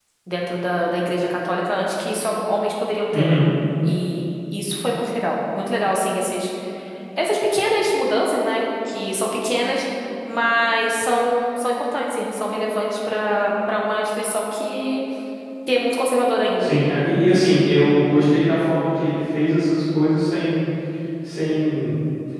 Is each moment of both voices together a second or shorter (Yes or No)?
Yes